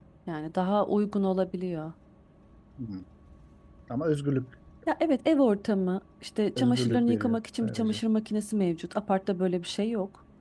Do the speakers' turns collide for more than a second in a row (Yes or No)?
Yes